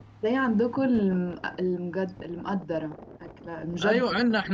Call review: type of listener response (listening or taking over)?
taking over